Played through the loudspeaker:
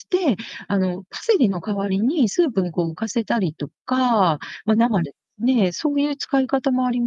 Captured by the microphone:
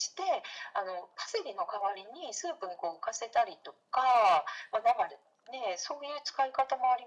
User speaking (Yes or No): No